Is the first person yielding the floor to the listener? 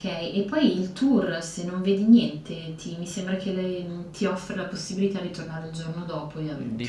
Yes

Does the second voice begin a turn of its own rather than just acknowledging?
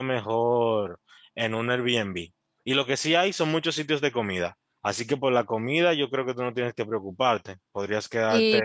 Yes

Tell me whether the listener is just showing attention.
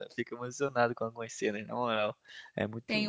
No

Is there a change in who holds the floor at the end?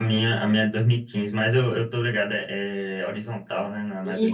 Yes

